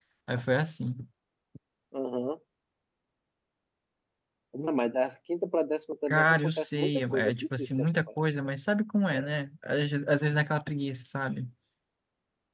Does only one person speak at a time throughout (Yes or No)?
No